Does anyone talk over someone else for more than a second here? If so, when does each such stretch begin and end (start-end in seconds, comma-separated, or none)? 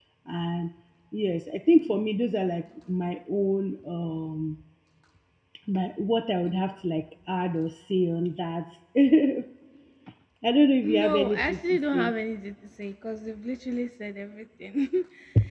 10.8-12.1